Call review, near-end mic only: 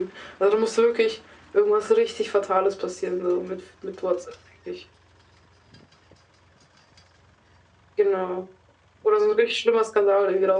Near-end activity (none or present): none